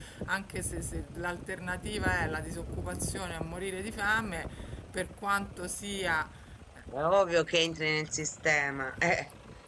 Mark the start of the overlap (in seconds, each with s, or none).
none